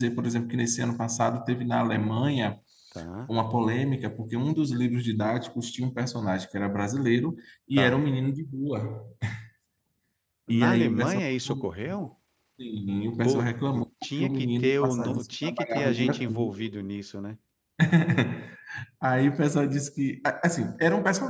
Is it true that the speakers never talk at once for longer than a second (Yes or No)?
No